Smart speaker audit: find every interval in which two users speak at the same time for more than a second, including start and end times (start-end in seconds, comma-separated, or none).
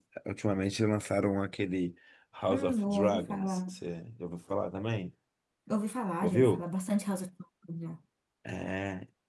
2.5-3.7